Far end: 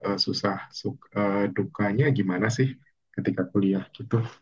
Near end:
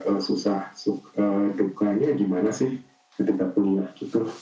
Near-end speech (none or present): none